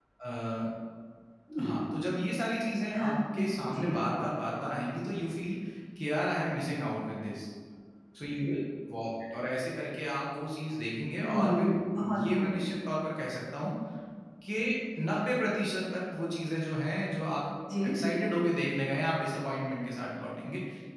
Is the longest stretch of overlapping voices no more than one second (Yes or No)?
Yes